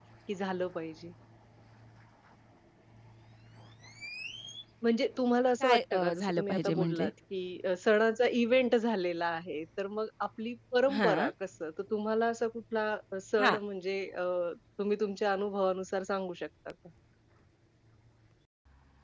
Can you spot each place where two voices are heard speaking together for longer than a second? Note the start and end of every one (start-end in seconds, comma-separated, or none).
5.6-7.1